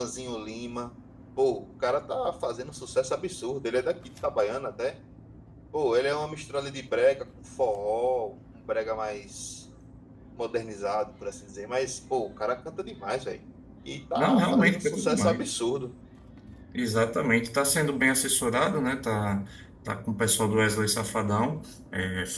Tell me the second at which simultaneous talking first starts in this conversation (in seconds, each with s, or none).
14.2 s